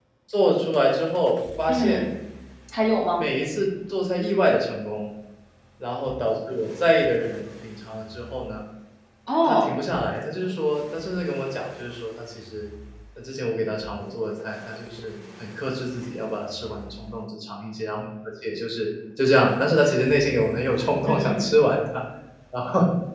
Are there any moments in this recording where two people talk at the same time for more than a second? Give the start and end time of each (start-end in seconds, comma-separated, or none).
none